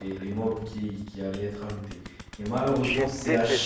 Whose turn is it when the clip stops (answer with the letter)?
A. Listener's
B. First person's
B